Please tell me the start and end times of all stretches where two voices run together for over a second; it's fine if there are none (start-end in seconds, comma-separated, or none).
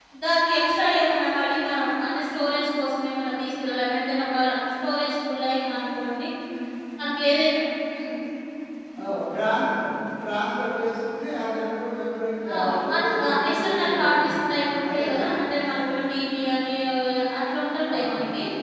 12.5-14.5